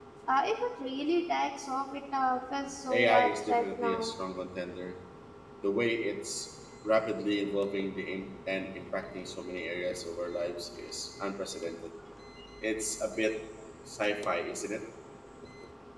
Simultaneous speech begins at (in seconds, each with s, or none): 2.9 s